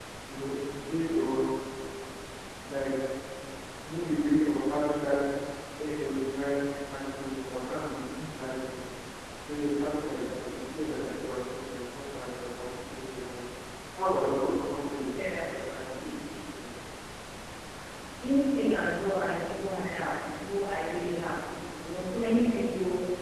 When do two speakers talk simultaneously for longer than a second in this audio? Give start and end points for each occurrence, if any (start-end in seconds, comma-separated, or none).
none